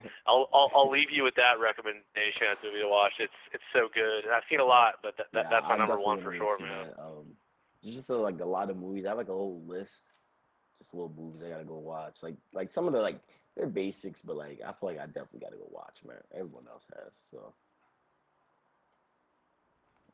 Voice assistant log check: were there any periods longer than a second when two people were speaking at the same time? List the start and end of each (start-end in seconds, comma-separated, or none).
5.3-6.8